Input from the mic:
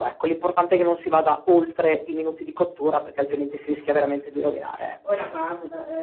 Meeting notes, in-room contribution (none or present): present